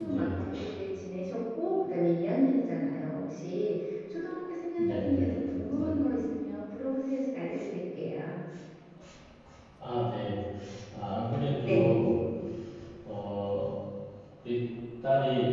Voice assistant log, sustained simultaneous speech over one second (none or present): present